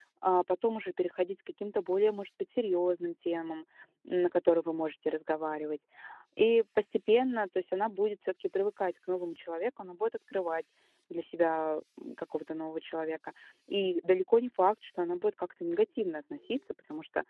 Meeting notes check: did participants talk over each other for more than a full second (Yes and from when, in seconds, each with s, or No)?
No